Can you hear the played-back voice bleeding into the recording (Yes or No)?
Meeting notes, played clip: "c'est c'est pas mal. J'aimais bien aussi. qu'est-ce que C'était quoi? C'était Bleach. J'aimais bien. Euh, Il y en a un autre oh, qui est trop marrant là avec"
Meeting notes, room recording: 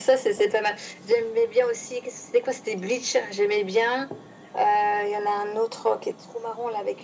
Yes